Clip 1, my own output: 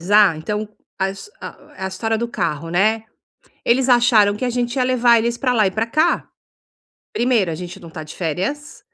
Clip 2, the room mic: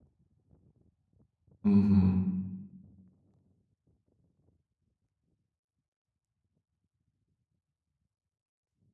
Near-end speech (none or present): present